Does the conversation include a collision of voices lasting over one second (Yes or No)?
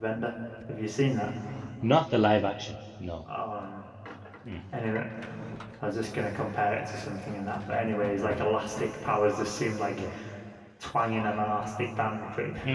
No